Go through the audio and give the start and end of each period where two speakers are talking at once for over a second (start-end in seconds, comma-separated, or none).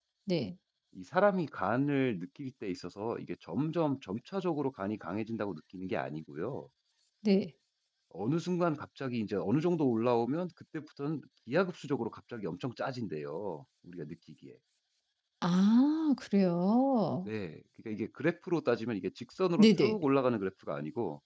none